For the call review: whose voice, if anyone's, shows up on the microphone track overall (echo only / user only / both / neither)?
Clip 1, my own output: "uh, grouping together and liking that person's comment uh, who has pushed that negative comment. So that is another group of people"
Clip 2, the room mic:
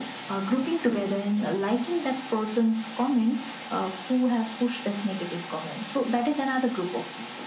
echo only